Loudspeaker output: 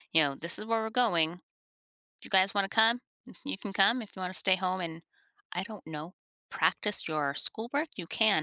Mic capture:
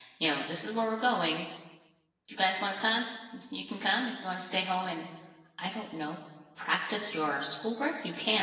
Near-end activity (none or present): none